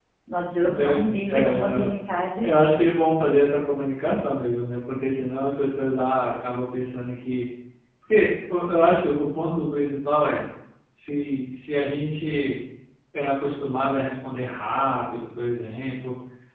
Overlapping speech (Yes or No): Yes